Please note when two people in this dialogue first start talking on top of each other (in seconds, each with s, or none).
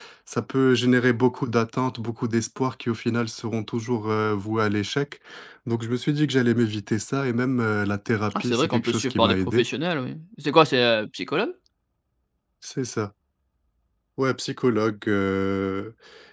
8.3 s